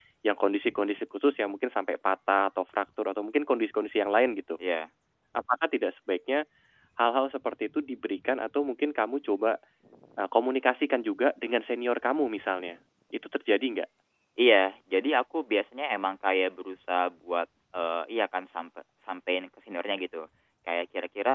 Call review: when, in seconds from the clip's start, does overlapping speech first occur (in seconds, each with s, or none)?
none